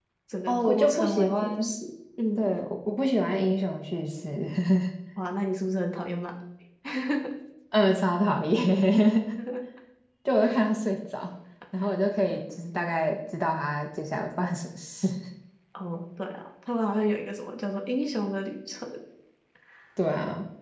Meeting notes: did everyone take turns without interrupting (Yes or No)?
No